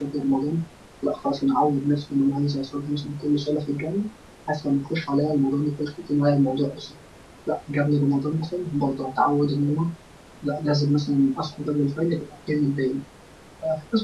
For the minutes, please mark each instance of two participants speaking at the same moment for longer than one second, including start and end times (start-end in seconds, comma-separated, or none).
none